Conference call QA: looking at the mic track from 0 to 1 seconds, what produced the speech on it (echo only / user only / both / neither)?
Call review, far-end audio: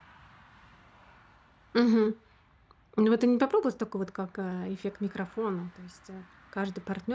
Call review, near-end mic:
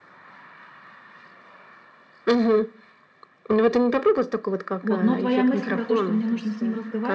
neither